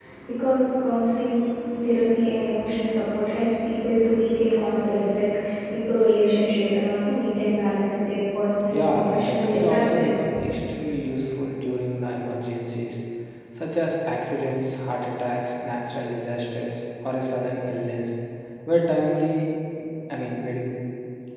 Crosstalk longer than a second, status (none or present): present